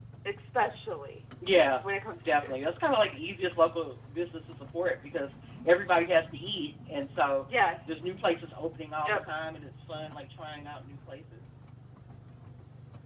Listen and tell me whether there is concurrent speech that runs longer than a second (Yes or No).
No